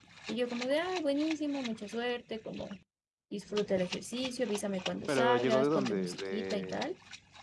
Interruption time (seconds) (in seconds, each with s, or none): 5.1 s